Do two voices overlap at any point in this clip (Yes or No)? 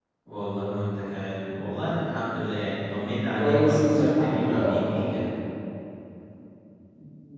Yes